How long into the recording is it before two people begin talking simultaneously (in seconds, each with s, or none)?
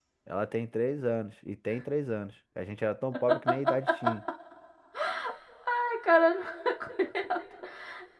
none